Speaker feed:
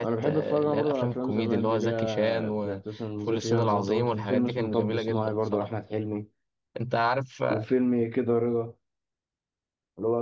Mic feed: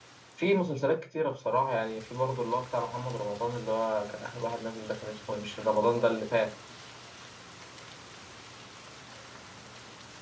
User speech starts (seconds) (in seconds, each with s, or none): 0.3 s